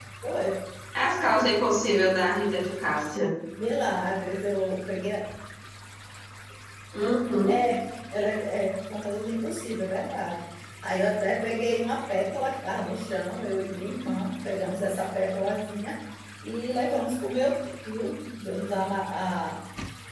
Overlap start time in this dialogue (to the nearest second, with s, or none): none